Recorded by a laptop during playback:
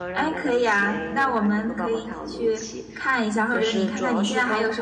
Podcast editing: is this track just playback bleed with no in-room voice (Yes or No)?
No